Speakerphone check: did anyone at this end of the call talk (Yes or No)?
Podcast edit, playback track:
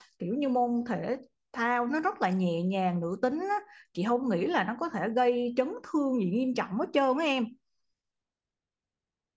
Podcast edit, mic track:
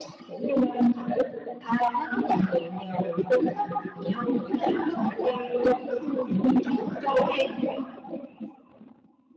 No